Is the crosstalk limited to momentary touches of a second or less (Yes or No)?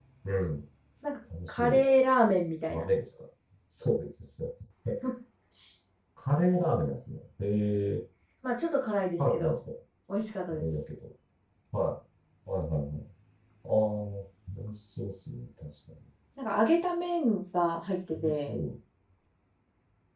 Yes